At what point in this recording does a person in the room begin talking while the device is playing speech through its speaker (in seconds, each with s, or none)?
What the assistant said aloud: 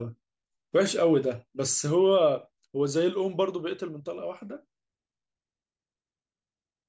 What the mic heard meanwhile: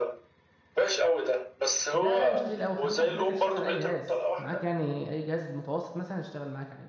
1.9 s